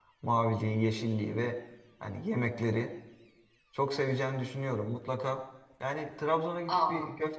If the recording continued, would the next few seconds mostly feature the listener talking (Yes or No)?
No